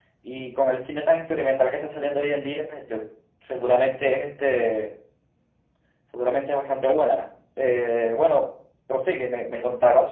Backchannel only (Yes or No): No